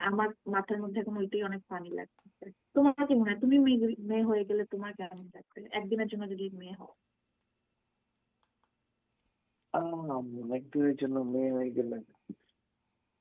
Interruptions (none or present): none